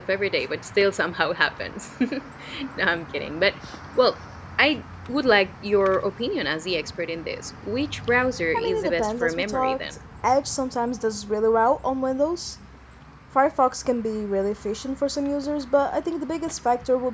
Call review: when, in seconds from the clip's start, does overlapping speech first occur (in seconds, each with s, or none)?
8.5 s